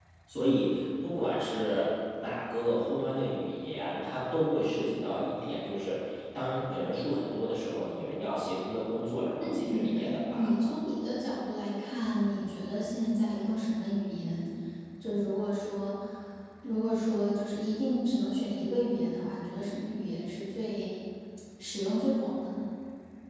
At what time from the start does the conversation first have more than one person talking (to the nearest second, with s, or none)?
9 s